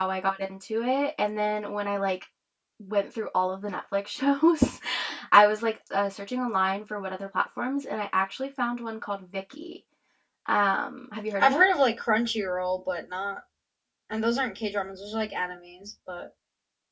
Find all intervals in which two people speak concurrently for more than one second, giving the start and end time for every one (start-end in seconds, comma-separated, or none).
none